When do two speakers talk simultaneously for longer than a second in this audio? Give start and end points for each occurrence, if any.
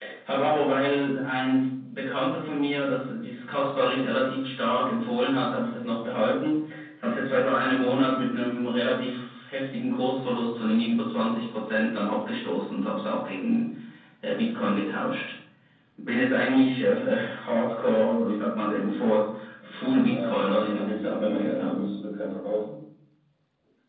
19.8-21.8

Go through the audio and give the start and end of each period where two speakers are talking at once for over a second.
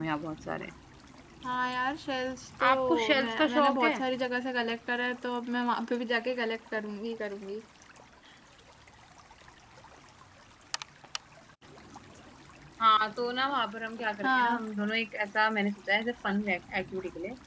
2.7-4.0

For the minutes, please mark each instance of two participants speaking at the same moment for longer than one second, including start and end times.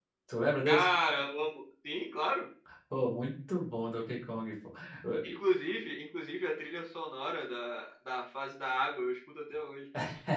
none

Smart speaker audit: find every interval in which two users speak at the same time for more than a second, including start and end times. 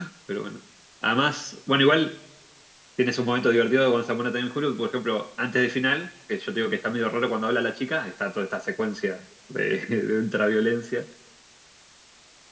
none

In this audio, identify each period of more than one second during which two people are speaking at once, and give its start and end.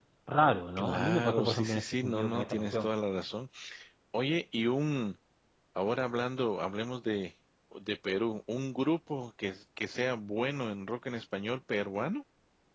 0.8-2.9

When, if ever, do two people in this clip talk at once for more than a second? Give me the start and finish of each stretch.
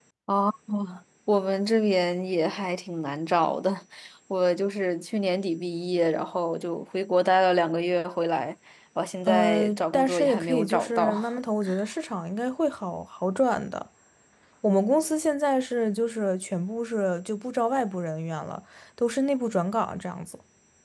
9.2-11.2

